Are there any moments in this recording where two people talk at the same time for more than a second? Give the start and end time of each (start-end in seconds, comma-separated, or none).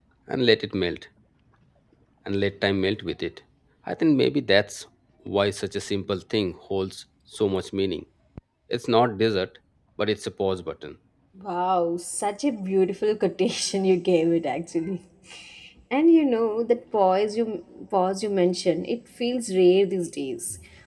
none